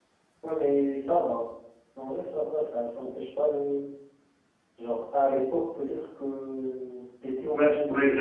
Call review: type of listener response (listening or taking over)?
taking over